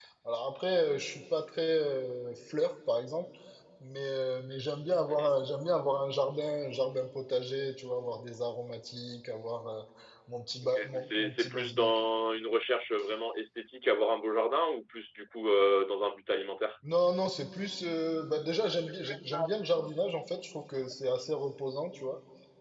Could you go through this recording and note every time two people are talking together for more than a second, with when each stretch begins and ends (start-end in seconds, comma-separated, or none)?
10.6-12.0